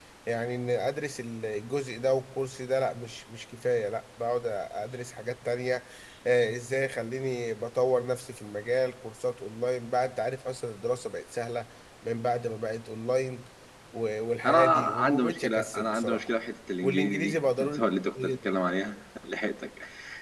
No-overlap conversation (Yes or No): No